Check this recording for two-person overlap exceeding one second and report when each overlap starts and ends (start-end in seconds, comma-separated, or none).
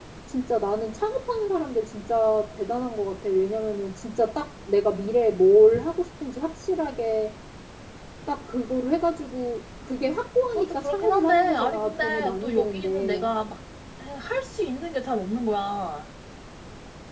10.6-13.3